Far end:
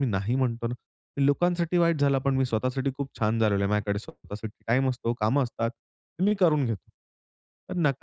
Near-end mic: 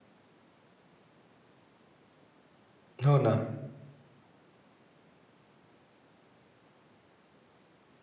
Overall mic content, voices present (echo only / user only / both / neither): user only